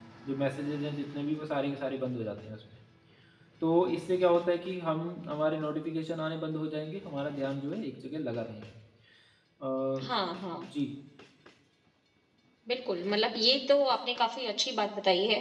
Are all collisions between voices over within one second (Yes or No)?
Yes